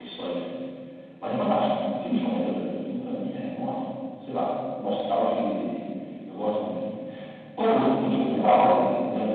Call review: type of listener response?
listening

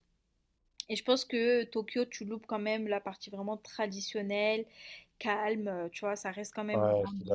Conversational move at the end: taking over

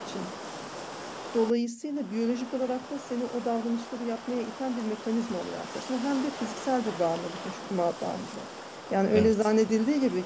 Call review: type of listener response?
listening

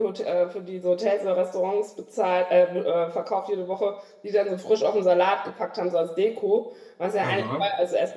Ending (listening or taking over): listening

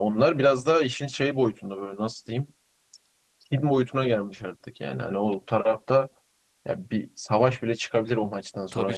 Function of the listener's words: taking over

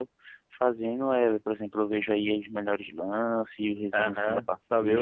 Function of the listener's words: taking over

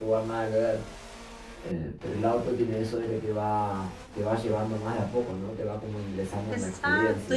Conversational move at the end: taking over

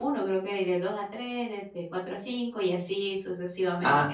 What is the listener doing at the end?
taking over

